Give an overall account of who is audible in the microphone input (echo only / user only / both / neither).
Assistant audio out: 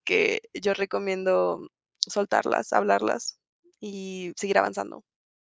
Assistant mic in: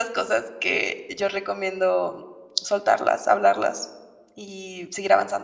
echo only